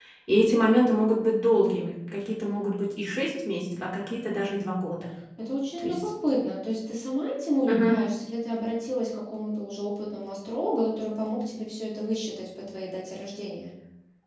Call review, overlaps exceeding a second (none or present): none